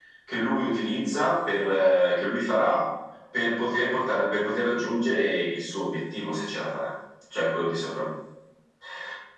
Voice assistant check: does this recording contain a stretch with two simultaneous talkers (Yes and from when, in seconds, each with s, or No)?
No